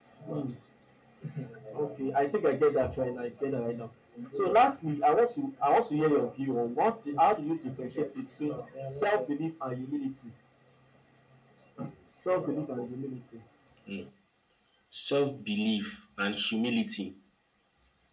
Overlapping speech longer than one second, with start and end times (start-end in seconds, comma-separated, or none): none